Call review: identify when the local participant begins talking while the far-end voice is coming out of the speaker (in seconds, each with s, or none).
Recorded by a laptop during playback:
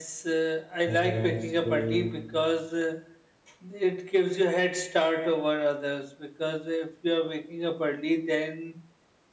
0.8 s